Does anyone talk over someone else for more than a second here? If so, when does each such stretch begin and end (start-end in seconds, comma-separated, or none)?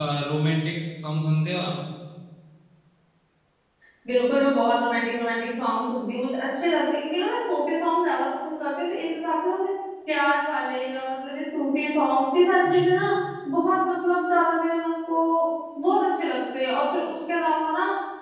none